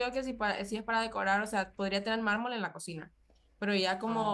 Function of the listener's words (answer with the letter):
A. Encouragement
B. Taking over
A